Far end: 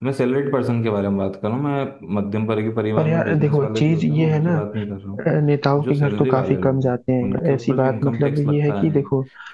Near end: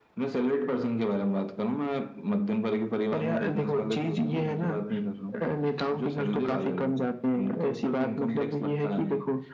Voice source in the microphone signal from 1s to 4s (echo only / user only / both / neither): echo only